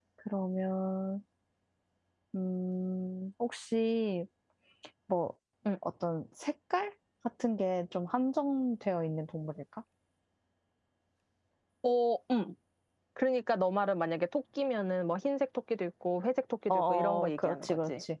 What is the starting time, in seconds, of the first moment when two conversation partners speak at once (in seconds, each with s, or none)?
16.7 s